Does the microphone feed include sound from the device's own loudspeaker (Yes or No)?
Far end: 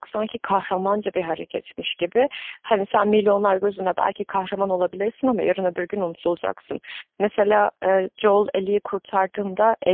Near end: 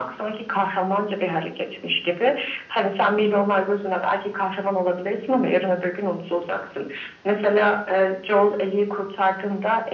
Yes